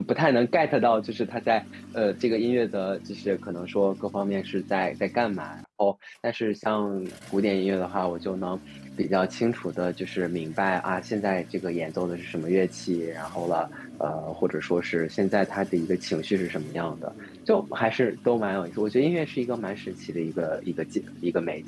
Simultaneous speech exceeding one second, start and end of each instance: none

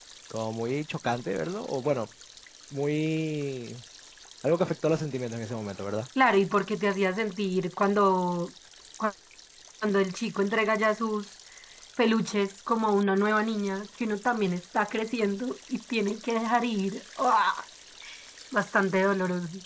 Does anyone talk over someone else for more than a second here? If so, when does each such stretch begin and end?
none

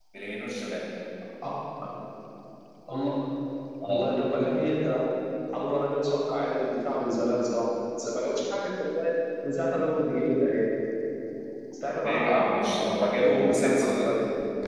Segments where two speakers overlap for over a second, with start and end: 12.0-14.1

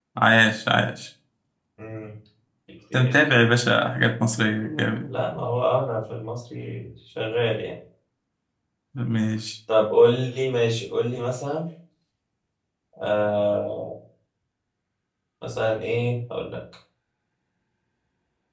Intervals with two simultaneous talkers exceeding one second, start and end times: none

